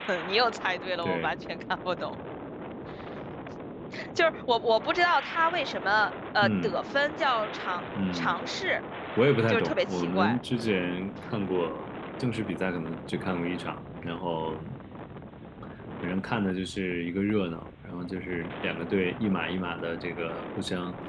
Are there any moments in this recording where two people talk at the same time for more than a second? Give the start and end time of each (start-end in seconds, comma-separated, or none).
9.5-10.8